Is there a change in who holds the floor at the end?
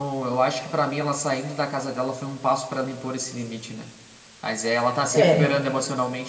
No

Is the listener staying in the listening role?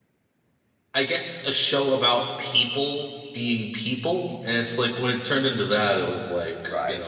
No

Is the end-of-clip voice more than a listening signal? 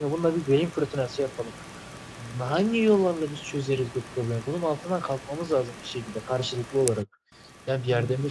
No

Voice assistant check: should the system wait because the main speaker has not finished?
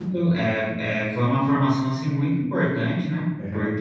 Yes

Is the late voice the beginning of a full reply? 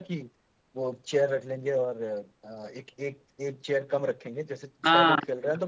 No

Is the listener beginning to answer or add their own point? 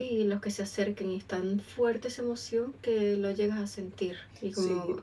Yes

